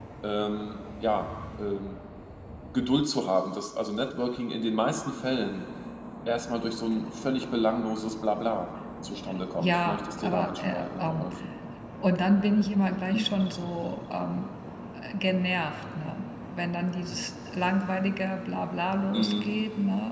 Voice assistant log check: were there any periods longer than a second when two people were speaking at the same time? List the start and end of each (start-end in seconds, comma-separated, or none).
9.6-11.2